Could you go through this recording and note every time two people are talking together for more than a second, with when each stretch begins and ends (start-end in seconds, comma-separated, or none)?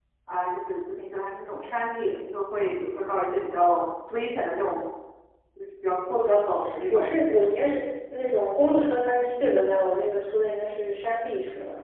none